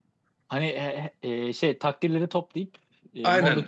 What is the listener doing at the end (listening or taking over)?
taking over